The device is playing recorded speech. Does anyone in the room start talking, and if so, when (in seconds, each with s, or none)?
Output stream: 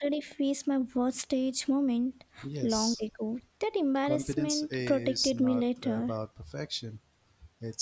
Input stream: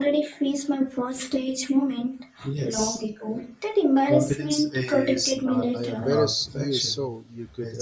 5.7 s